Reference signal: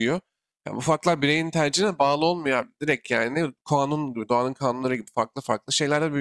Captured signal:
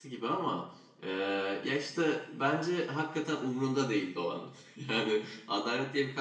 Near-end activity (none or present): present